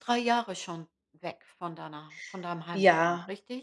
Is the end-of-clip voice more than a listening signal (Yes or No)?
Yes